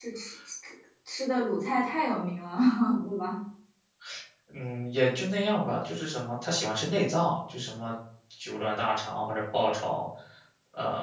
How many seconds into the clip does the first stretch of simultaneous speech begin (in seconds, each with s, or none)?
none